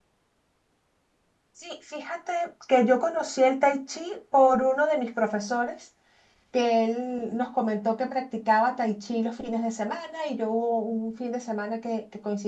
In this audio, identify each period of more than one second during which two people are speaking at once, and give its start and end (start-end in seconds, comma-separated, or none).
none